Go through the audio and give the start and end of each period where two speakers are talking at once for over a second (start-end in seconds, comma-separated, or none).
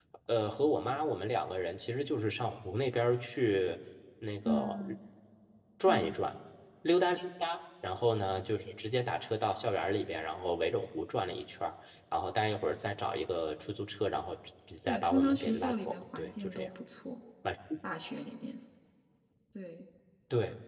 14.9-16.7